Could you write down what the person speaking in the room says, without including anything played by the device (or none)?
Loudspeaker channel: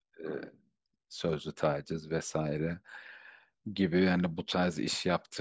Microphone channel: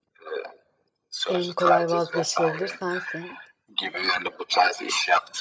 en kolay vazgeçilebilir sensin.